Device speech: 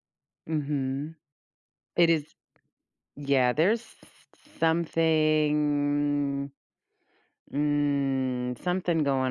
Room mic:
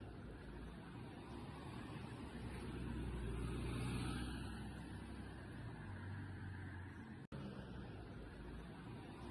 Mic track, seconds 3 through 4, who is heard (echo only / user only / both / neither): neither